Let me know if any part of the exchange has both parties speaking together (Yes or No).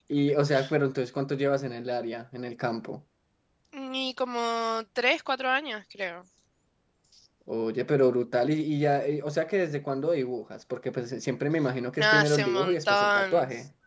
Yes